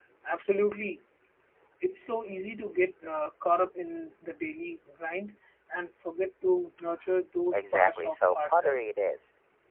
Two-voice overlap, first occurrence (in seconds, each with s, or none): 7.5 s